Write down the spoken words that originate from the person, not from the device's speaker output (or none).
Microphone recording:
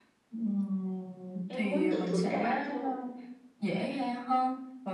em muốn tự thưởng cho bản thân